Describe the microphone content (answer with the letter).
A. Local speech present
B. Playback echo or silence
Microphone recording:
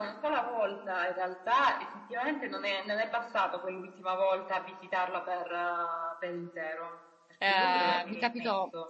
A